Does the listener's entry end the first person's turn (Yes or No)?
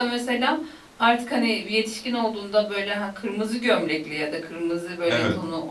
No